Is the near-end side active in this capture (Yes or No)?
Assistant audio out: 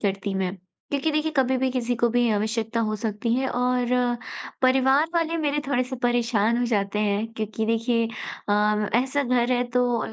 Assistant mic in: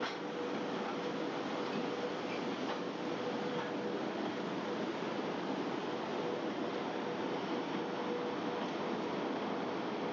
No